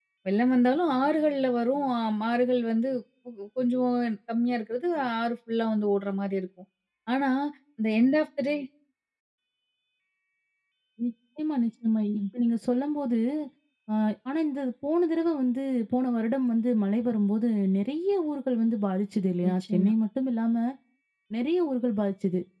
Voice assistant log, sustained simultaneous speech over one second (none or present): none